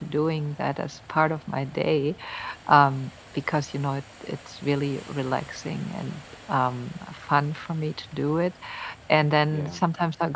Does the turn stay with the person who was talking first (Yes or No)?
Yes